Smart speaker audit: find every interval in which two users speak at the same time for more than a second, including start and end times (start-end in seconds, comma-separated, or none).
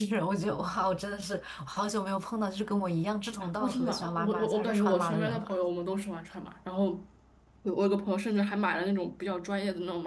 3.6-5.5